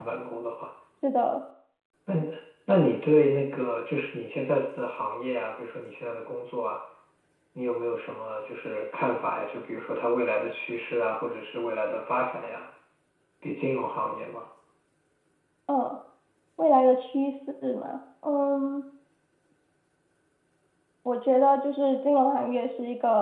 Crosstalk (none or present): none